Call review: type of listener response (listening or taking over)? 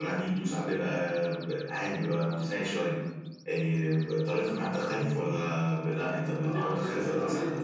taking over